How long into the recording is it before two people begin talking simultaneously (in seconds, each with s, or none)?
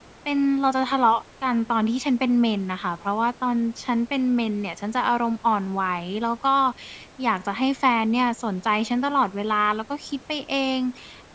none